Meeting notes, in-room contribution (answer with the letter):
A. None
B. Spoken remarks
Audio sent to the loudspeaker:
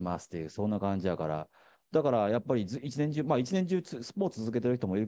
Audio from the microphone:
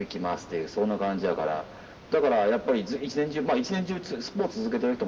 A